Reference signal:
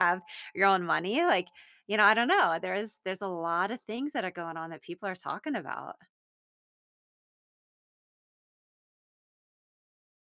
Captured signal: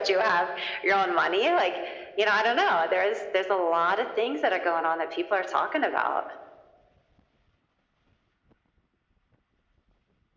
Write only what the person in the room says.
none

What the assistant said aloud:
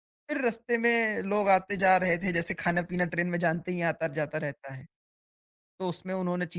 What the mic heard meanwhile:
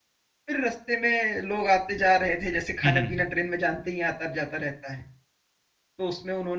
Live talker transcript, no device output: हुँ, हुँ।

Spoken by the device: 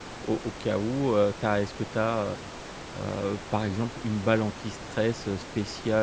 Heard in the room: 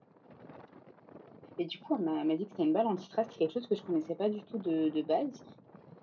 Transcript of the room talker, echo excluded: et du coup, elle m'a elle m'a dit que c'était une balle anti-stress, C'est quelque chose que je connaissais pas du tout de de base

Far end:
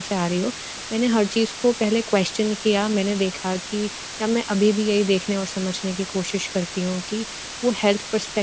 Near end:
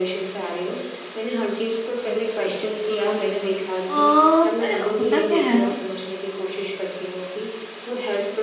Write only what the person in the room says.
पर होता क्या है ना

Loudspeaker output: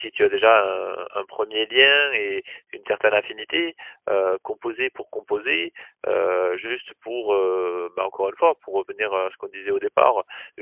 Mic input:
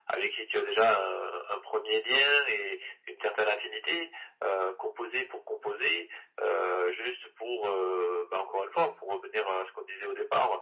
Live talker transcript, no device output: none

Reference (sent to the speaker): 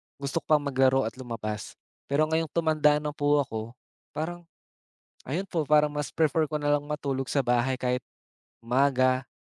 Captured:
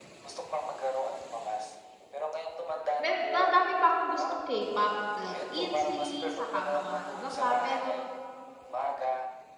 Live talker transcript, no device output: may madami pa akong gustong K-pop like ITZY saka mga iba pa pero,

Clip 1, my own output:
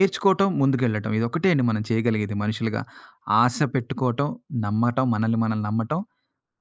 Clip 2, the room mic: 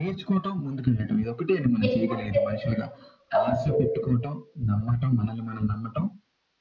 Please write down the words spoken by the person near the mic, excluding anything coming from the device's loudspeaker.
ఏమనిపిస్తది అప్పుడు?

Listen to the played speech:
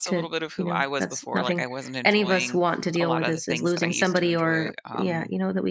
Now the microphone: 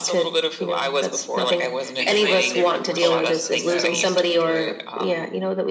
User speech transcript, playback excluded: because they they run horse shows, and so

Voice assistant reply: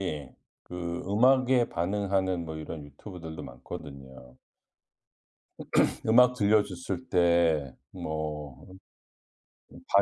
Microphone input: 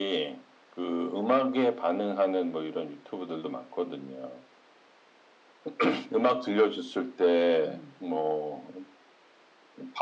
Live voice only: 음.

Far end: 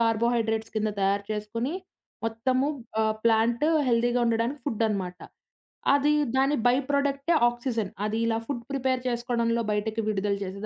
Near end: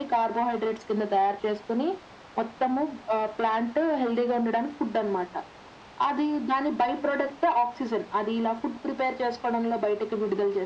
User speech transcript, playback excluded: none

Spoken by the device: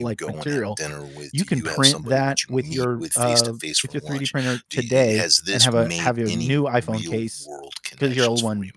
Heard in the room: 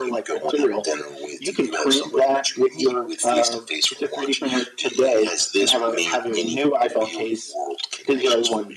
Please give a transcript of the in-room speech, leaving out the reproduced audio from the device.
none

